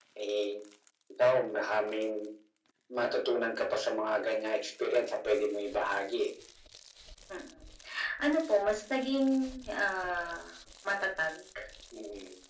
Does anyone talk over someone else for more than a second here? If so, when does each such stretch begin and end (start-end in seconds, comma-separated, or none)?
none